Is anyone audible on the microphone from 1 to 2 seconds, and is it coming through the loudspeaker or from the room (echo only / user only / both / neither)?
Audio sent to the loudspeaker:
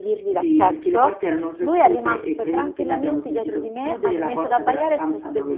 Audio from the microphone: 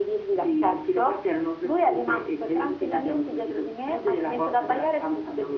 echo only